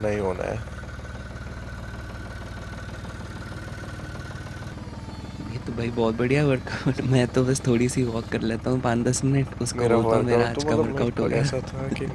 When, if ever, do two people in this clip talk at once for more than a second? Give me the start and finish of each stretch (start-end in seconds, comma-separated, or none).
9.8-11.5